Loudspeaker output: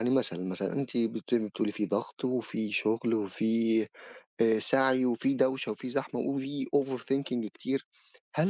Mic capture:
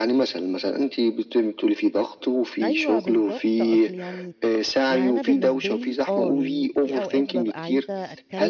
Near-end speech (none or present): present